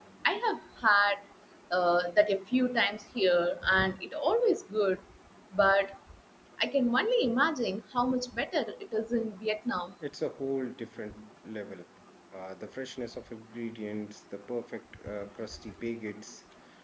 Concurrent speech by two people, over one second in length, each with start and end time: none

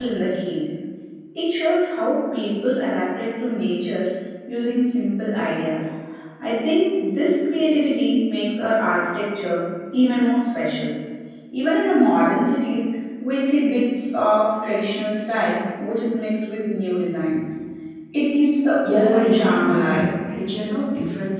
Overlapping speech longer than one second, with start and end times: 18.8-20.1

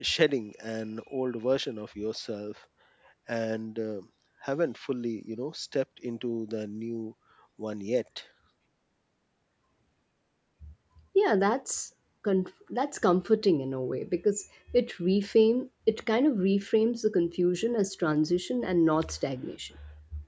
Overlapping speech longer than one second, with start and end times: none

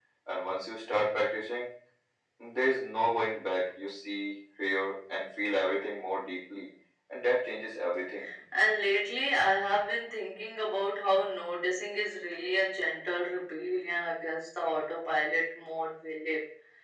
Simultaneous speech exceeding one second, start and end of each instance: none

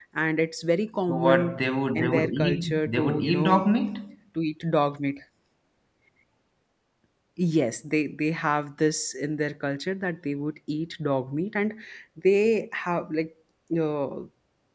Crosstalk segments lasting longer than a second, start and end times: 2.0-3.5

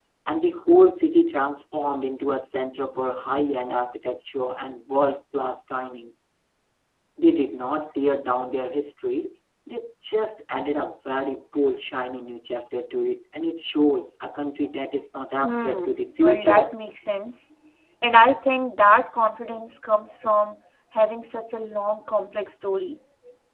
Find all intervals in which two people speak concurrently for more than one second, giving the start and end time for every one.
15.4-16.7

